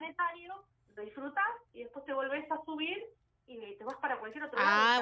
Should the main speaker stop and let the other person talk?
Yes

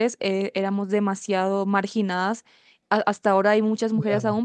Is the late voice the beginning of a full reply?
No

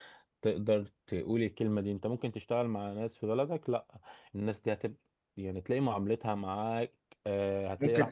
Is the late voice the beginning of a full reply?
Yes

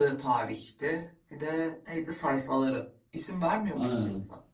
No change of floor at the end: No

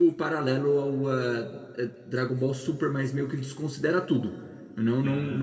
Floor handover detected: No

